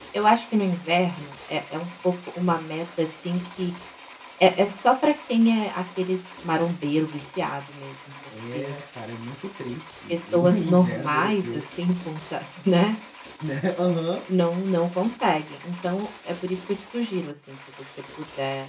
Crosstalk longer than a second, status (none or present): present